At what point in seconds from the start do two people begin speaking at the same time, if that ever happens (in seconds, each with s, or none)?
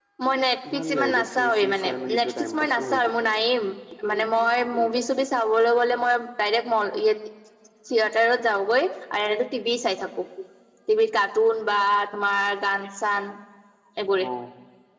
0.7 s